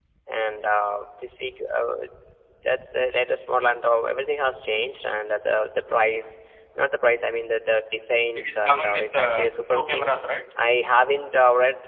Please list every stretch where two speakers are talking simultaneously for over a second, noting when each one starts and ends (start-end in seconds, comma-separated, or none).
8.4-10.1